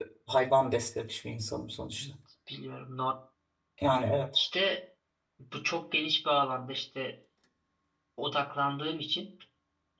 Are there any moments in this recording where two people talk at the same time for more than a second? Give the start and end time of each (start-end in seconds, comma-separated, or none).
none